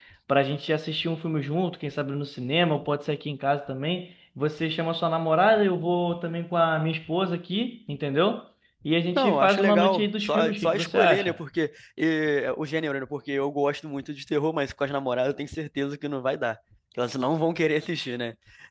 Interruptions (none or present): present